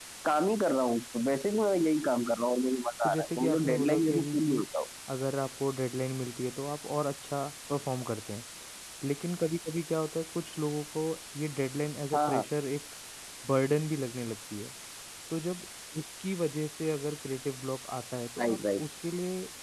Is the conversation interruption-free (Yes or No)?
No